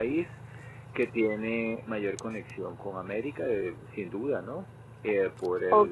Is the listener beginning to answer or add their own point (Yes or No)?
Yes